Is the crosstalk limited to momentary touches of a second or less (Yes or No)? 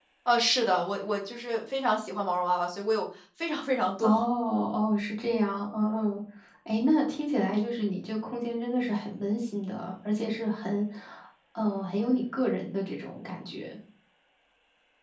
Yes